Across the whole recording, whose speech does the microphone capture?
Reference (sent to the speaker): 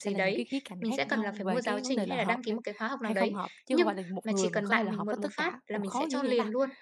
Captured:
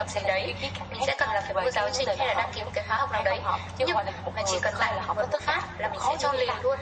echo only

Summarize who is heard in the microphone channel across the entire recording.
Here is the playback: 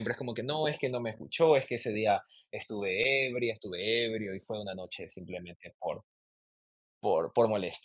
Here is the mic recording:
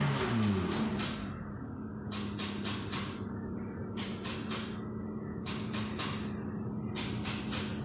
neither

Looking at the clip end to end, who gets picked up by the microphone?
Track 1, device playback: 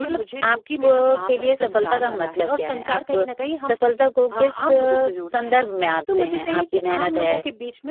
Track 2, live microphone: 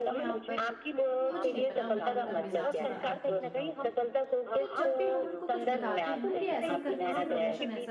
both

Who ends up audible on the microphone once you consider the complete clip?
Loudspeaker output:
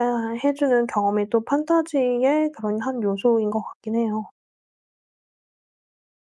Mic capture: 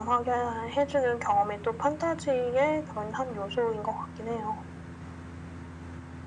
echo only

